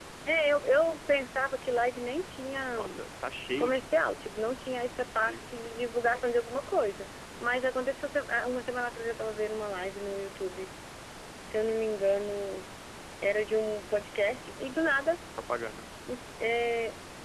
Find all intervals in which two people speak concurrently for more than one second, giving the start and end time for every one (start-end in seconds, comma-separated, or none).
none